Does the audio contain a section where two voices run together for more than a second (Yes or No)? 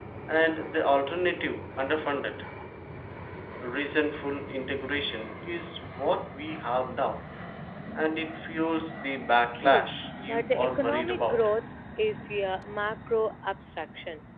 Yes